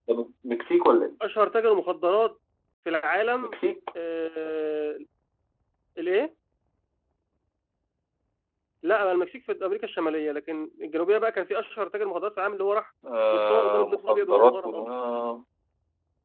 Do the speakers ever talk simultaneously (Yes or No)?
Yes